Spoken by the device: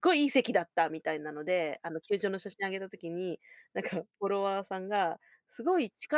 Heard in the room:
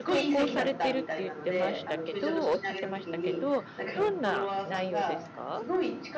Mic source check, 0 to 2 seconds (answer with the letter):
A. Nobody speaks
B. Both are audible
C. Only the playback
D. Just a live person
B